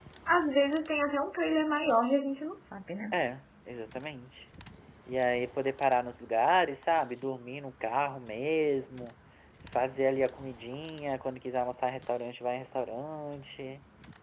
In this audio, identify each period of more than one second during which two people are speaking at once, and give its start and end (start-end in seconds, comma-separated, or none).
none